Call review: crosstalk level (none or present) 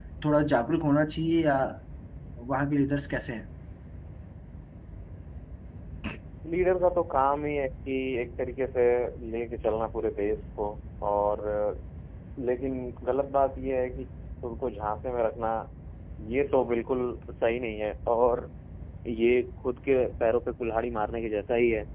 none